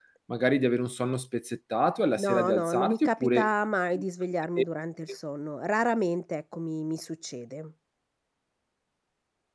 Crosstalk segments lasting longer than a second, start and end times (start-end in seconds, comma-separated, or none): 2.2-3.5